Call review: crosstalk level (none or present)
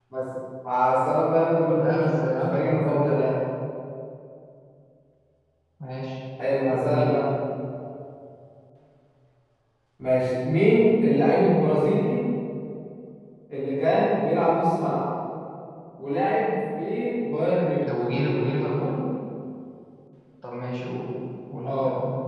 present